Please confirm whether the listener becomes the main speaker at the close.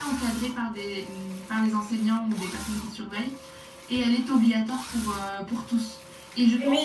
Yes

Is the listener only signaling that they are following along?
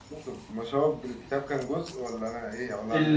No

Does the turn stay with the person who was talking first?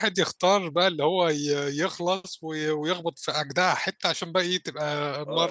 No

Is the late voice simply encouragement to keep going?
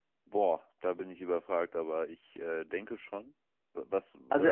No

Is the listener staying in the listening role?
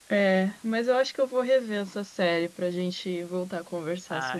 No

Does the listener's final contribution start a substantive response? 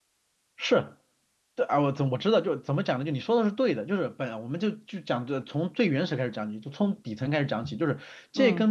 No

